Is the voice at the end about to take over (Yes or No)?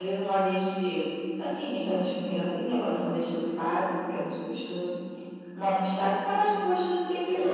Yes